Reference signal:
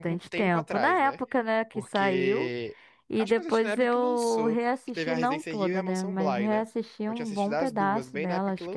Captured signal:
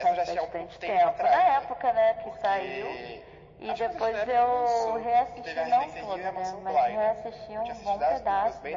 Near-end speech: none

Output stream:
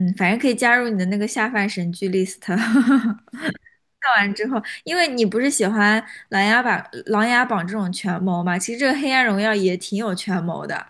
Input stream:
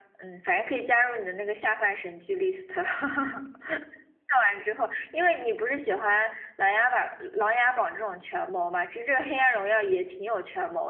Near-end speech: none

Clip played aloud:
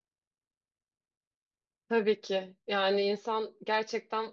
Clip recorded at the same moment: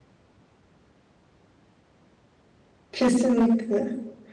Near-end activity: present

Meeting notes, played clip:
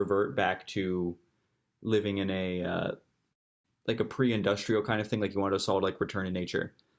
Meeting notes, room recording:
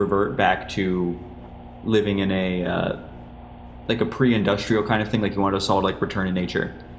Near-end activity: none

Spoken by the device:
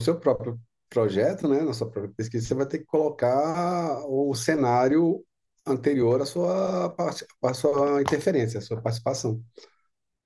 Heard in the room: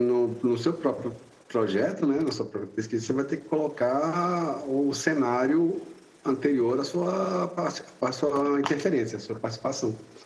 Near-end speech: none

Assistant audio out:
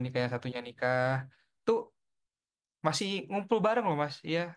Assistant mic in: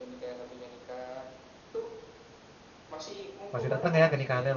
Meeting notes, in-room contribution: present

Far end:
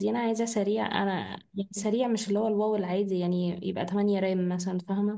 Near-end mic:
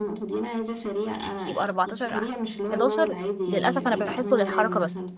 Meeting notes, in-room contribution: present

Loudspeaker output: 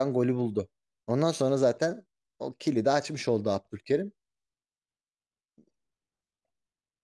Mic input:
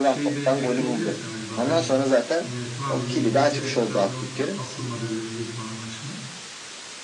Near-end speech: present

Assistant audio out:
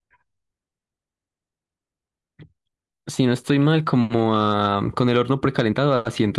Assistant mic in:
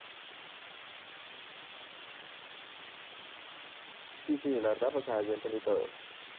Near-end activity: present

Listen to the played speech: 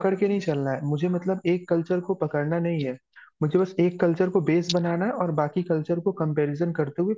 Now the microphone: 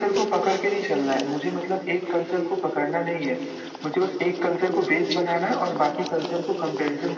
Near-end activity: none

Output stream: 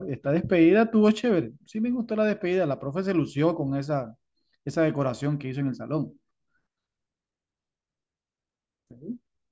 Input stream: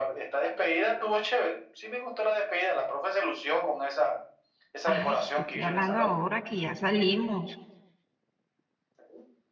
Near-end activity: present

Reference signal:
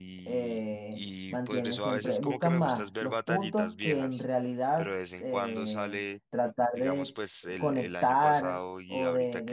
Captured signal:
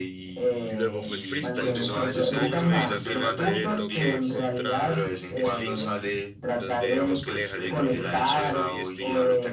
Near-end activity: present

